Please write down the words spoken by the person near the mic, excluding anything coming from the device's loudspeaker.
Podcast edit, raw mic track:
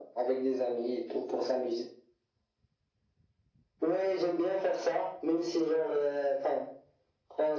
none

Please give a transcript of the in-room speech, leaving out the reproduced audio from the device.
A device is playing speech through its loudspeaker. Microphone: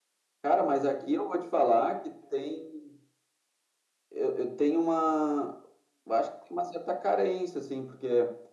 none

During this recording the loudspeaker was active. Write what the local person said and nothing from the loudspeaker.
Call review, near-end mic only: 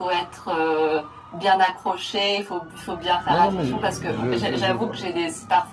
Non, non, mais je, je, je vois,

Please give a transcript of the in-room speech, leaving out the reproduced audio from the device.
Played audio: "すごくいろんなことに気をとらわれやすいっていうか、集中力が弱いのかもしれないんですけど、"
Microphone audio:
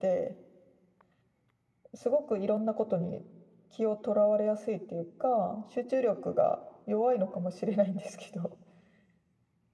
none

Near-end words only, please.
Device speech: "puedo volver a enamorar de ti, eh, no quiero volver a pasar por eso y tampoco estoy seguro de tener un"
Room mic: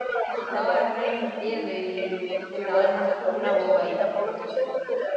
te estaba re mintiendo y, y te estaba dejando como una boba ahí.

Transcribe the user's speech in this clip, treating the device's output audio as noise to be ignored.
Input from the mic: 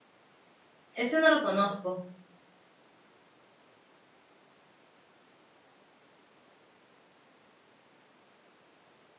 Ese no lo conozco.

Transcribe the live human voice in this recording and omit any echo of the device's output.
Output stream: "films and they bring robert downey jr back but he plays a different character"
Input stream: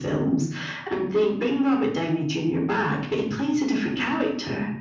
none

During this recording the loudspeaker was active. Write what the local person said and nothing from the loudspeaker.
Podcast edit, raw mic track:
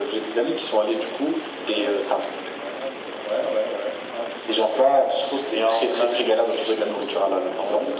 none

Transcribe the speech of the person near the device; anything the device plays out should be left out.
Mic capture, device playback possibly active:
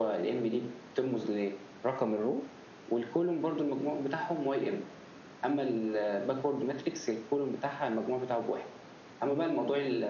none

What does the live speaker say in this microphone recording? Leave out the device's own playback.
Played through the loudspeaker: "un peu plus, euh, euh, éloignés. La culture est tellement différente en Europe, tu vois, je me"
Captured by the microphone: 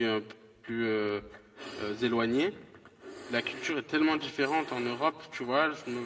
none

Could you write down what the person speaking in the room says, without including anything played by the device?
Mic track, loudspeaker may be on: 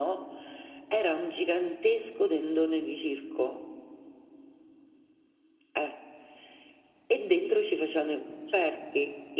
none

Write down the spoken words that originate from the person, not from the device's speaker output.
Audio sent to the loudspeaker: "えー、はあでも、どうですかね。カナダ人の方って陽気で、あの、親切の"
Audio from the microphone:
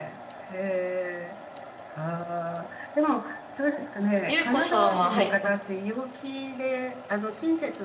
ゆうこさんは、はい。ま

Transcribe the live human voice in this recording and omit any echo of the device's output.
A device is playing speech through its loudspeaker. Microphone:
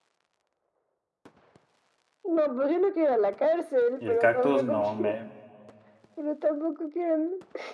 Y el cactus, no, me...

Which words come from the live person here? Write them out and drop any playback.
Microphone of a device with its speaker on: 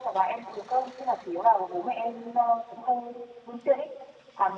none

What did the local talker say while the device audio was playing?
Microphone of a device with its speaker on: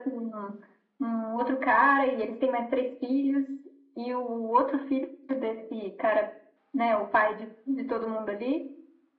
none

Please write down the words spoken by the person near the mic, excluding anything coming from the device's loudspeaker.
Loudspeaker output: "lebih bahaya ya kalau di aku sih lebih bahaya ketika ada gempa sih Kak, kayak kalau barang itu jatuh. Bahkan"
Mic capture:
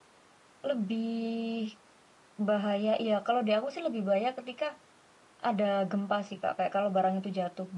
none

